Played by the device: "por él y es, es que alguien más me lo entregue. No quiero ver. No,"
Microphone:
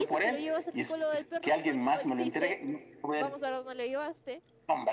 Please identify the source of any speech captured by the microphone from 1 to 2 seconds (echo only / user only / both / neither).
both